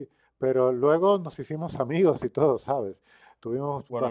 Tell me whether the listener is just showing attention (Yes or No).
Yes